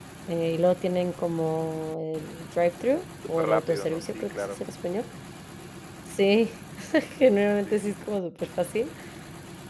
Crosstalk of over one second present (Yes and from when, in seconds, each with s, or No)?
Yes, from 3.3 s